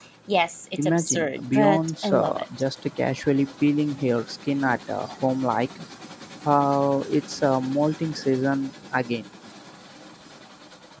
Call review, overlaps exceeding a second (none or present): present